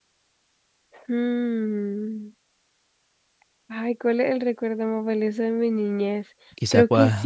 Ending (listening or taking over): taking over